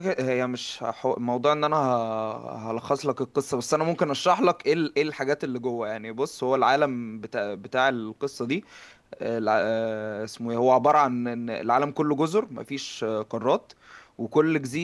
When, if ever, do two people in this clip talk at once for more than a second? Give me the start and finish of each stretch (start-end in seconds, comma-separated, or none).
none